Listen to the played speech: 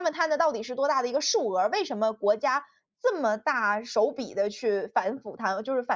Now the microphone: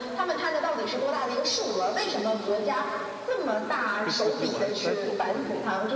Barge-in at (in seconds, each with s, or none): 4.0 s